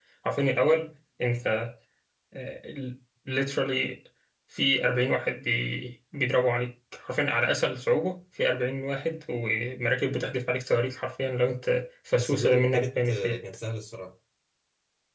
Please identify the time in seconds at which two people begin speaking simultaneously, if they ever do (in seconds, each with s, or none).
12.2 s